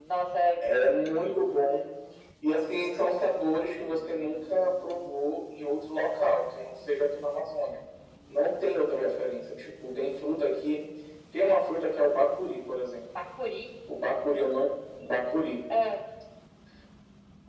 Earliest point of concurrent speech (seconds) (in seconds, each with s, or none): none